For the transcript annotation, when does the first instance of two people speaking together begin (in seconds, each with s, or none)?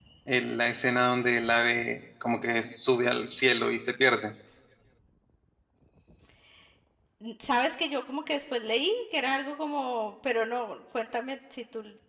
none